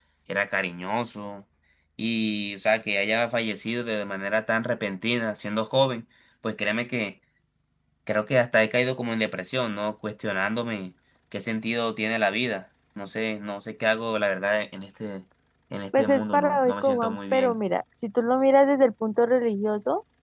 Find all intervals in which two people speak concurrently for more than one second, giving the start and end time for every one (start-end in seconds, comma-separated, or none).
16.0-17.6